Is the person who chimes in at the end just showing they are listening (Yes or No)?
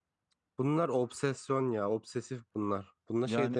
Yes